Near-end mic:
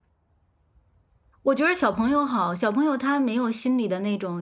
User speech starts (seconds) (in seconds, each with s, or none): 1.4 s